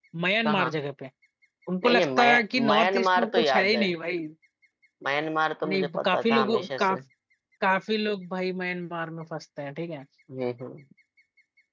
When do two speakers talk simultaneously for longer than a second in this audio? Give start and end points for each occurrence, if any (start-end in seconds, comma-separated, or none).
1.8-3.9, 5.6-7.0